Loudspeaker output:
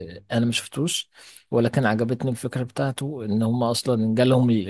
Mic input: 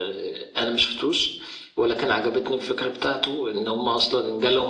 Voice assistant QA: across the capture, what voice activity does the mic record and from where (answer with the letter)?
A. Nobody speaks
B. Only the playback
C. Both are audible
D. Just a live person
B